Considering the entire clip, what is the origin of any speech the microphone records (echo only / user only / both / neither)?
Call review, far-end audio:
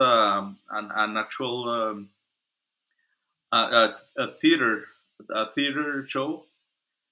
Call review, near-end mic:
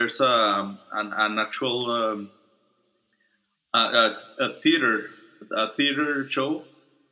echo only